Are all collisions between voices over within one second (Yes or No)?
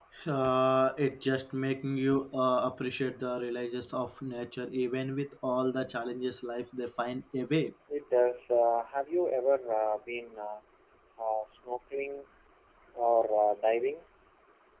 Yes